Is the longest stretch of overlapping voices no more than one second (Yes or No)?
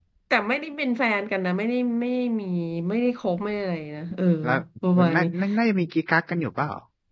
Yes